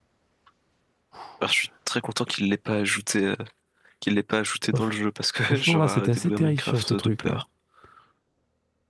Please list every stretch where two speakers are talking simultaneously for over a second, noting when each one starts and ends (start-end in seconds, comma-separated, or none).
5.5-7.4